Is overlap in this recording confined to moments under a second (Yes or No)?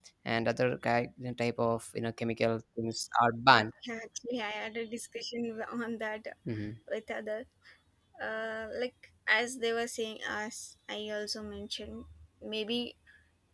Yes